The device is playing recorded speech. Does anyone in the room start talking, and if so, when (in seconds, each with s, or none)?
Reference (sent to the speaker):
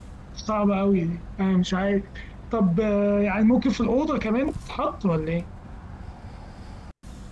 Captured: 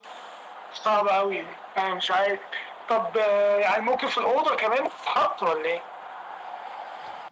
none